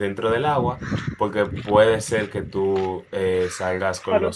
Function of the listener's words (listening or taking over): taking over